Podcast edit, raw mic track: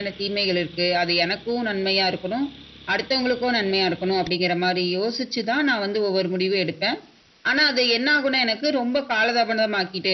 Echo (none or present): present